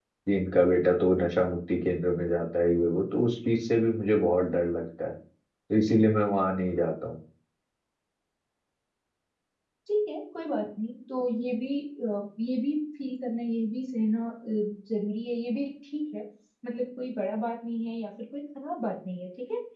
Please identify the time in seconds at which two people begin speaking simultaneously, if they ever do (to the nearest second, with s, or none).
none